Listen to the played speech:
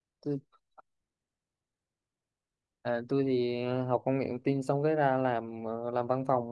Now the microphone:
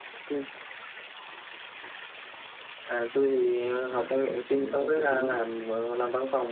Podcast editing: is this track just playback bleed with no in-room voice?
No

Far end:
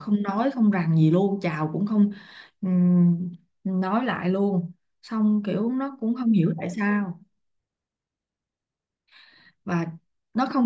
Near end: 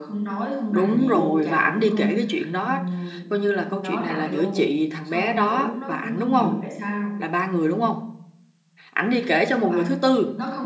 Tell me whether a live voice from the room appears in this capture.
Yes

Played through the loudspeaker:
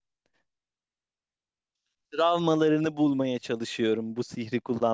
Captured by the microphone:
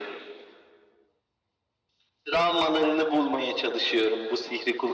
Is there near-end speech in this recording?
No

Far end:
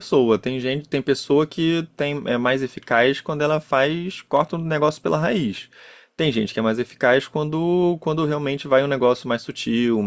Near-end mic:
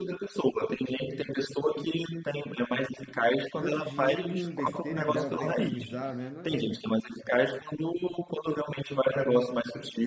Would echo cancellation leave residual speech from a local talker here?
Yes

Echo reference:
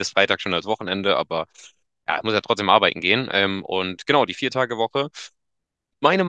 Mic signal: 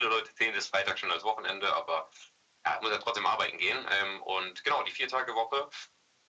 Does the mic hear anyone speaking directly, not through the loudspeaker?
No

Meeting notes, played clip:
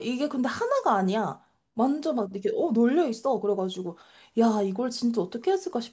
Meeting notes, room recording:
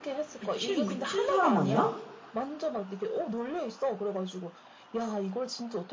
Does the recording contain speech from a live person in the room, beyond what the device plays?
Yes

